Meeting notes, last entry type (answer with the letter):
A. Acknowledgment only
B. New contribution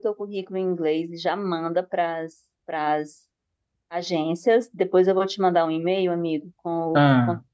A